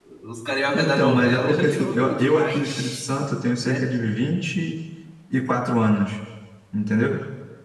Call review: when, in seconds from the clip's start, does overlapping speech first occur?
0.8 s

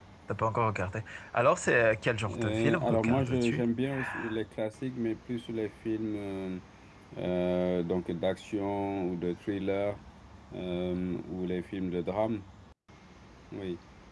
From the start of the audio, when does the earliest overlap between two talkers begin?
2.3 s

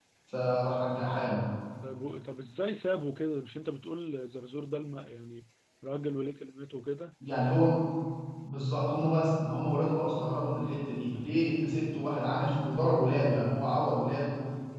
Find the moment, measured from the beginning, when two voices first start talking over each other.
none

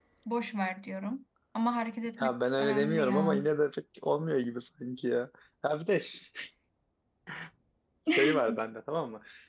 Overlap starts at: 2.2 s

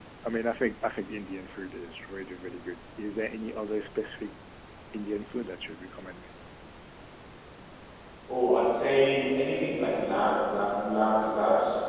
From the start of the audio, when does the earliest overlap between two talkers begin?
none

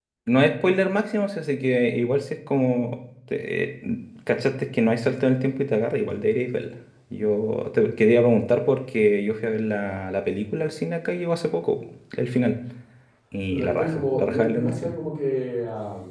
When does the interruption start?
13.5 s

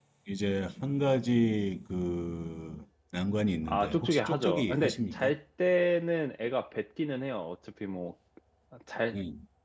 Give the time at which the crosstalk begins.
3.7 s

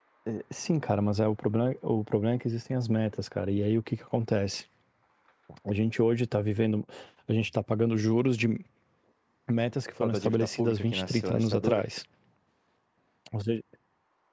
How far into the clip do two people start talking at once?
10.0 s

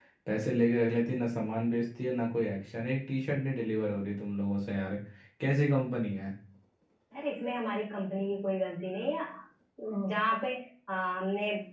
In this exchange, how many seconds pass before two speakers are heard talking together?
none

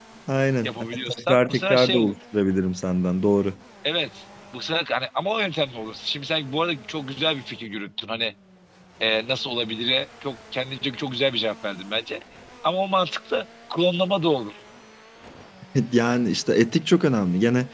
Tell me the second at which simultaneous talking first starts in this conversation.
0.6 s

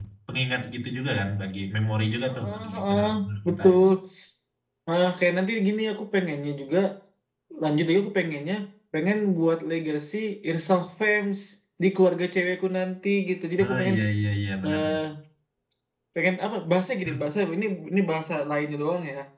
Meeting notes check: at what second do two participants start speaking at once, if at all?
2.3 s

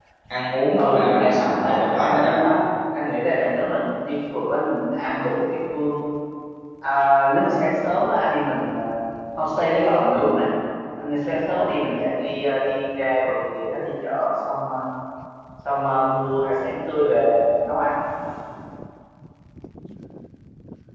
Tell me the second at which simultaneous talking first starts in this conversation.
0.8 s

